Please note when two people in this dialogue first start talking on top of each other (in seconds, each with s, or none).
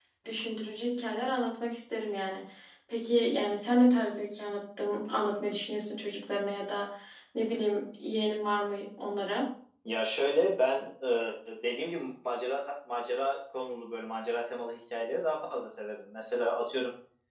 none